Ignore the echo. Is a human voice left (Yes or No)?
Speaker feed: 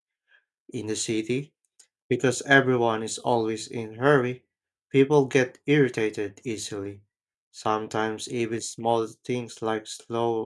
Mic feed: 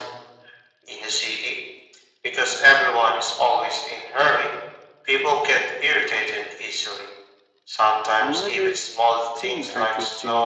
Yes